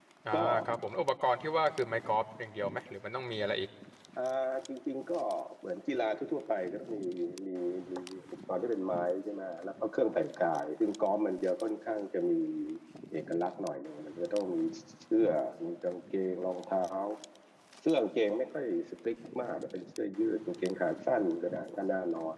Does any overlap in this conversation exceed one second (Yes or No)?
No